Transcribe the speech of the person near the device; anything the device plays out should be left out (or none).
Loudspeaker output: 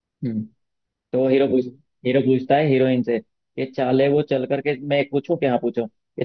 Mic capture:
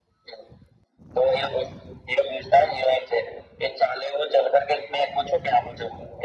none